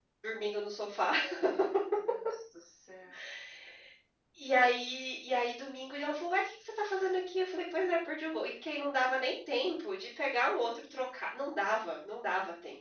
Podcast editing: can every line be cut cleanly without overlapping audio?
Yes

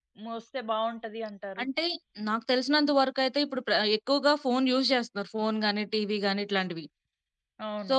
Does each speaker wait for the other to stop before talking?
Yes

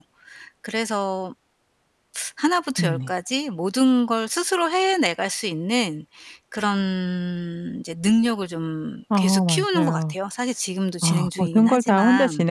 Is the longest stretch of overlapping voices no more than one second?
No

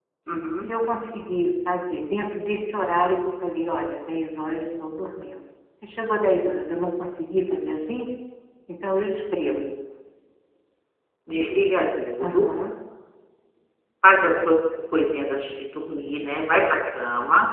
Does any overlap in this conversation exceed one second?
No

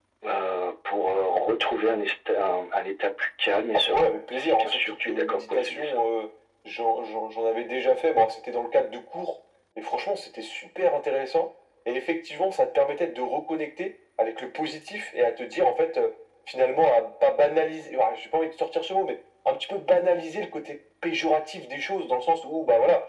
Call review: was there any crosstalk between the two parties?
Yes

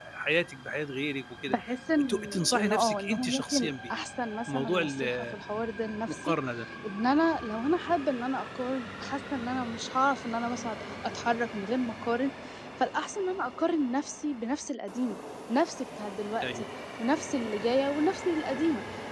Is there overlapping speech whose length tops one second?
Yes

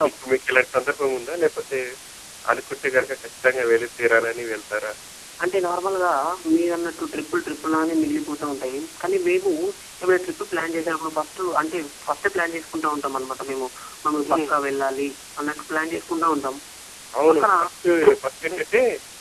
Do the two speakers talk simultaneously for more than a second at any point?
No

